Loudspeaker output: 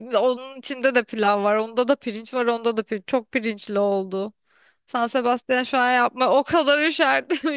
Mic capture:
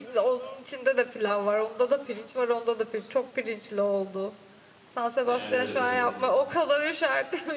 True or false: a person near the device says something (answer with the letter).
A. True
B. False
A